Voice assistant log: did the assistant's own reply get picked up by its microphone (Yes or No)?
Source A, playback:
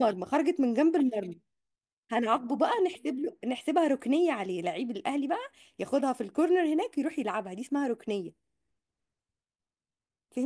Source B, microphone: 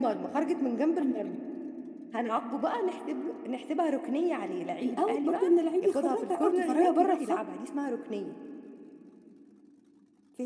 Yes